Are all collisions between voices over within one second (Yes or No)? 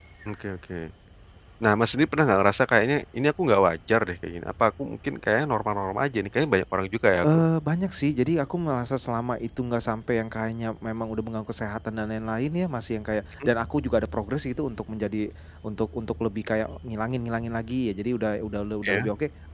Yes